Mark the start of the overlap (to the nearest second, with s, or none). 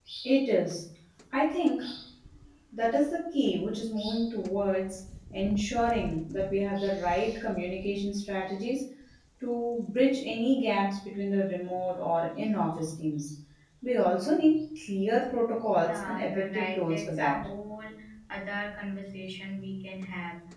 16 s